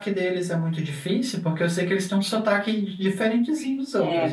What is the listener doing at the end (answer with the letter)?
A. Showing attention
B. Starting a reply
B